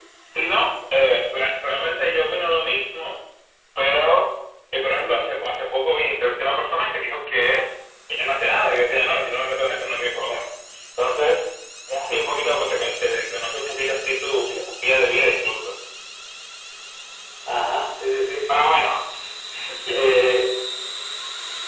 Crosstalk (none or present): none